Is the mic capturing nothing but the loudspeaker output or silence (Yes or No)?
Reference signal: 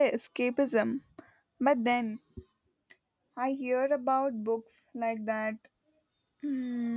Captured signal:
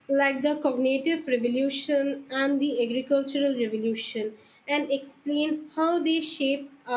No